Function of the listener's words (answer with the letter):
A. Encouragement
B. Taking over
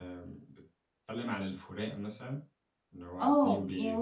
B